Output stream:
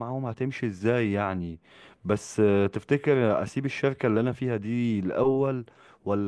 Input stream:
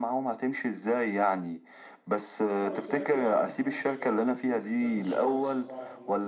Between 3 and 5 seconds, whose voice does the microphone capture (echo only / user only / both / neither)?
both